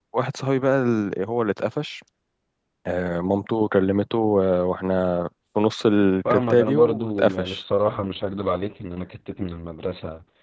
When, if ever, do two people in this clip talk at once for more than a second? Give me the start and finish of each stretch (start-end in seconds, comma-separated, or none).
6.3-7.6